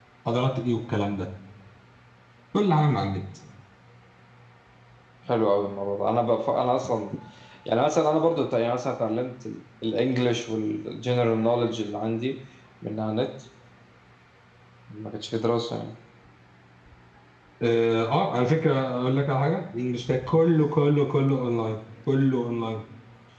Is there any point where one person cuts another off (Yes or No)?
No